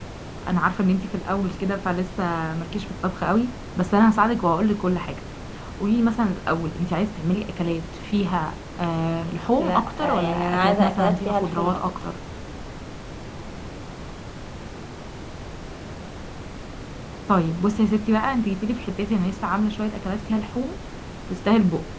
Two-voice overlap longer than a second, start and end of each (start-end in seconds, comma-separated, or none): 9.6-11.9